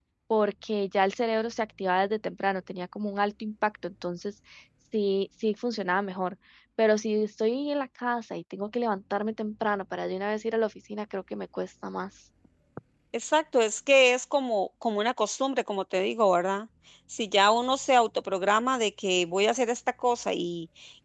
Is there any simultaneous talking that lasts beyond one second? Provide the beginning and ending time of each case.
none

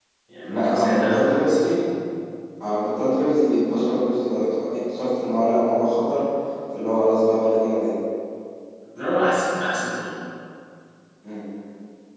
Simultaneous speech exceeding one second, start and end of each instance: 0.5-1.7

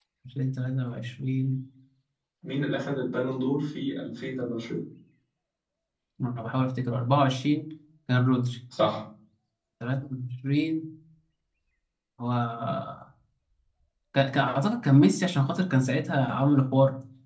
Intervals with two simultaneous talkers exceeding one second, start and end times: none

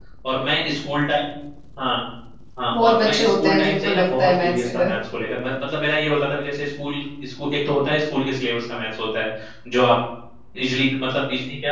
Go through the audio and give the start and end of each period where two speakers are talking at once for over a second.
2.7-4.9

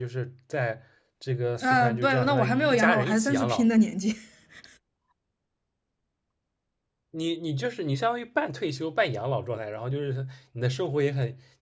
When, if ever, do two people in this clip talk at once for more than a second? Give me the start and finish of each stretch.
1.6-3.7

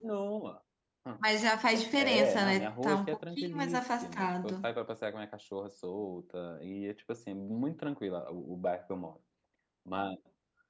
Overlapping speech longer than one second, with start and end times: 2.0-4.7

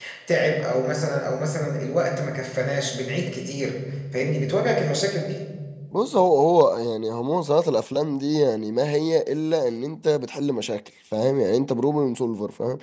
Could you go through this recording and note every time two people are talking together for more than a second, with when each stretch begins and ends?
none

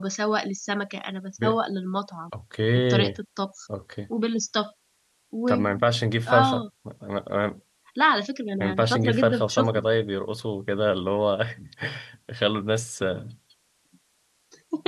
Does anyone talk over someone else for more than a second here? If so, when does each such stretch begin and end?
8.6-9.8

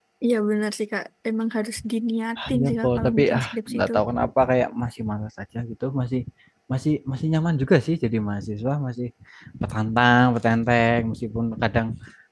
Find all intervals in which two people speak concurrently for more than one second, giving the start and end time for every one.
2.5-3.9

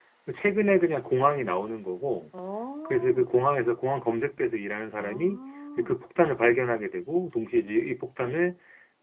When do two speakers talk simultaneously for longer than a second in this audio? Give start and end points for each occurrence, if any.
none

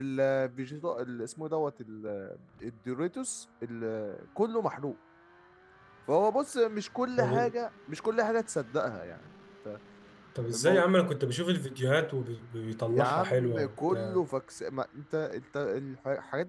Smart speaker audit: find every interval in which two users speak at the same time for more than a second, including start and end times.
12.9-14.2

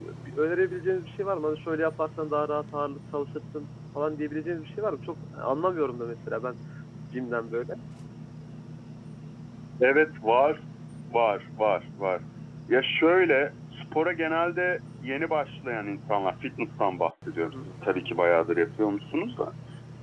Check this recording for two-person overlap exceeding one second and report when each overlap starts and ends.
none

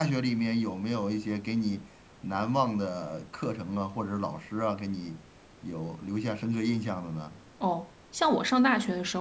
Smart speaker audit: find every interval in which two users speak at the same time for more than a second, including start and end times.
none

